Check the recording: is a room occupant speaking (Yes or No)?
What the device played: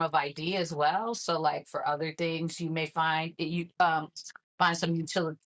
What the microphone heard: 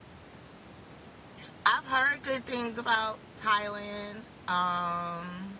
Yes